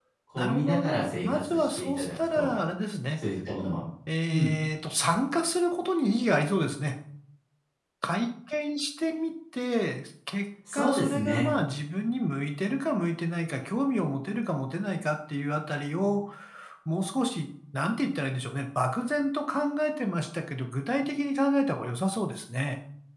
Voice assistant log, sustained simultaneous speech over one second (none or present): present